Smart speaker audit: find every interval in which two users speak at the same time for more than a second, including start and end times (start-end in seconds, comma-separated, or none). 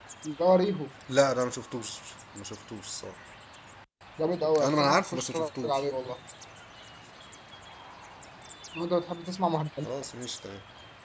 4.6-5.8